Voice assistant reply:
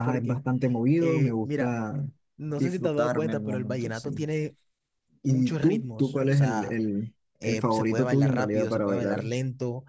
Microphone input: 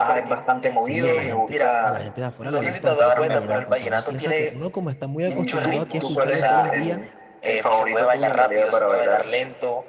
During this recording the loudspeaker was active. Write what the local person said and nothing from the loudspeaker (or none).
sí, a la gente, a la gente de afuera le gusta bastante el vallenato. O sea, uno piensa que uno como está muy acostumbrado aquí a escucharlo todos los días,